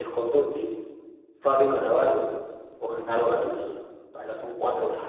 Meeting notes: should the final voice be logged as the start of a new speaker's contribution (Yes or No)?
Yes